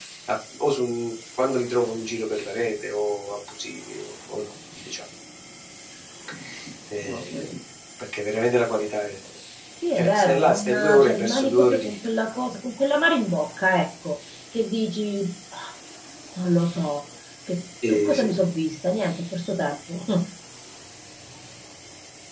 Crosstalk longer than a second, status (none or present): present